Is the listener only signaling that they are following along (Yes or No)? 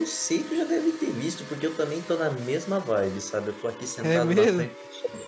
Yes